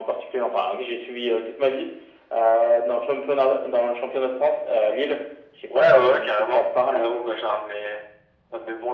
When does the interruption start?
5.7 s

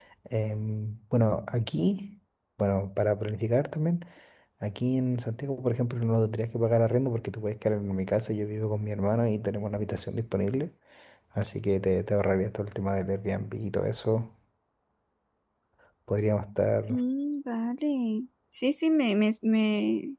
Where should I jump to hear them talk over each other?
none

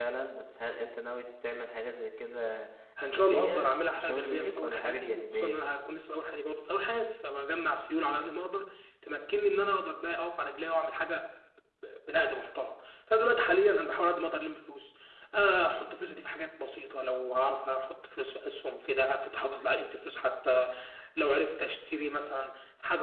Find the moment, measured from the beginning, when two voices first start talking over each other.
3.0 s

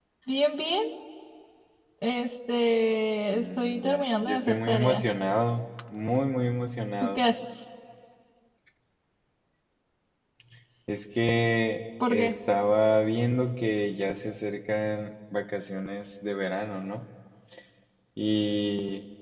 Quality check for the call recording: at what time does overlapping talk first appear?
3.3 s

